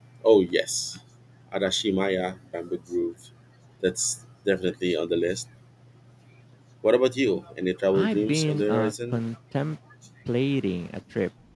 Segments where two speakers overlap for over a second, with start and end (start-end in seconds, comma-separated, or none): 7.9-9.2